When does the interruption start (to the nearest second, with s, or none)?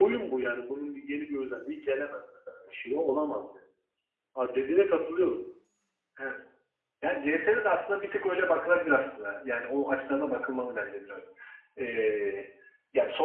none